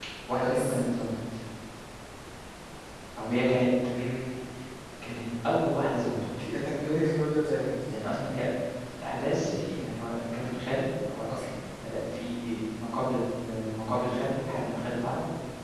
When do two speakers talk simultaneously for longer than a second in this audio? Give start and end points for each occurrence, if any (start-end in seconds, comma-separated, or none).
none